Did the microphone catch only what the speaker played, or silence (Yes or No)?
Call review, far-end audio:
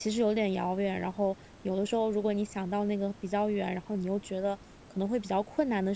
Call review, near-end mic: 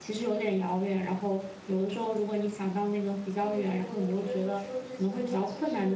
No